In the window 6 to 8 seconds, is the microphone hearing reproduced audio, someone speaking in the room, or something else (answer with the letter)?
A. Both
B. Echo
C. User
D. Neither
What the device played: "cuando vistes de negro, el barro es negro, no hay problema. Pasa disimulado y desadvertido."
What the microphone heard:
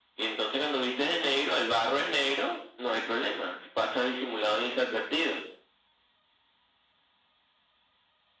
D